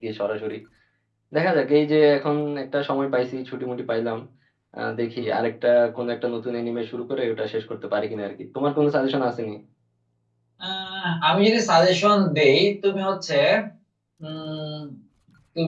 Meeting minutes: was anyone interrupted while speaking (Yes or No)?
No